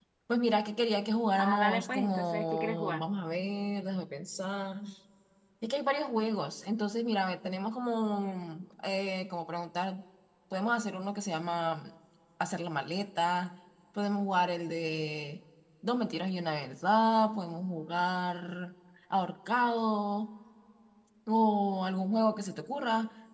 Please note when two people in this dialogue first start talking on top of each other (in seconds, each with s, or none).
1.4 s